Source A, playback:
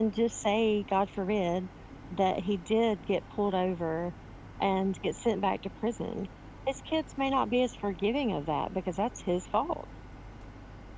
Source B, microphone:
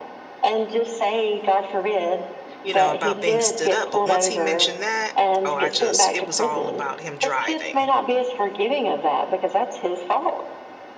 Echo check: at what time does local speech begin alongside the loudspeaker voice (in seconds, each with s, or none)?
2.6 s